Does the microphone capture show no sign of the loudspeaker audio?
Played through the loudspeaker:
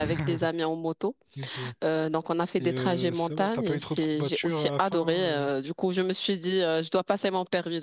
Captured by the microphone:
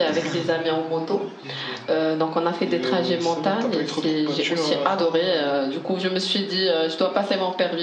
No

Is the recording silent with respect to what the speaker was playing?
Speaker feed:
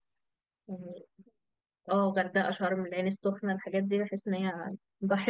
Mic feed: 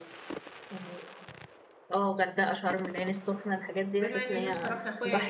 No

